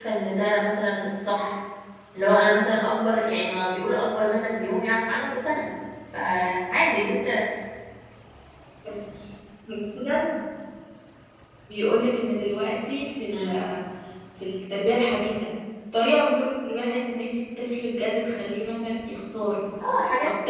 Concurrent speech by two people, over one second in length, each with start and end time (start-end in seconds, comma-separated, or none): none